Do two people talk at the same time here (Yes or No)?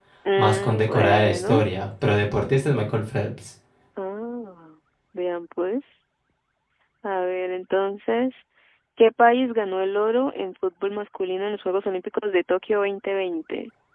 Yes